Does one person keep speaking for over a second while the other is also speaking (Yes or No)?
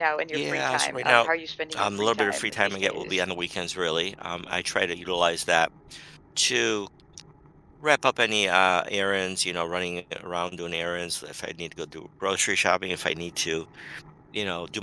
Yes